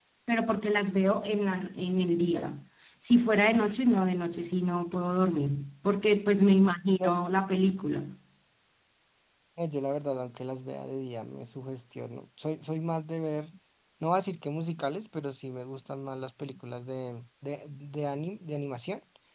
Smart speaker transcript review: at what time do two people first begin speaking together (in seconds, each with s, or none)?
none